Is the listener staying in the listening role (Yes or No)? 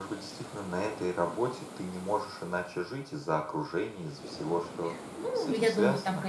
No